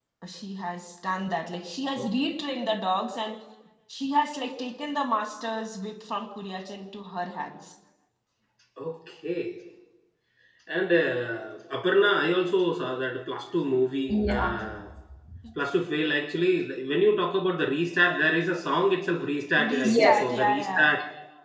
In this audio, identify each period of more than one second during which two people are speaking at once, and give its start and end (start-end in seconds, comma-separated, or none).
19.6-20.9